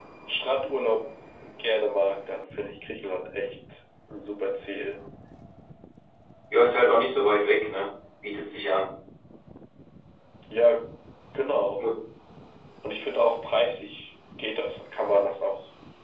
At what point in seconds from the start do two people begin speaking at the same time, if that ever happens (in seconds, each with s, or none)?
none